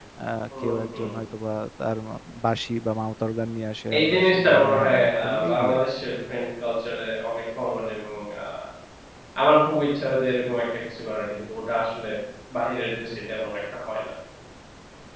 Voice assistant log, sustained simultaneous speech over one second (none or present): present